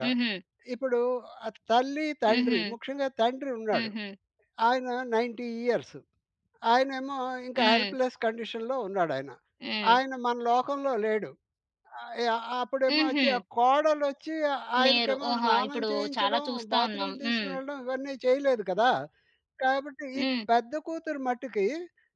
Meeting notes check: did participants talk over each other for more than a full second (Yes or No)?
Yes